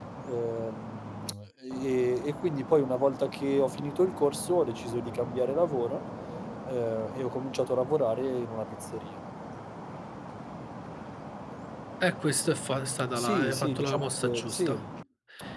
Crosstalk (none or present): present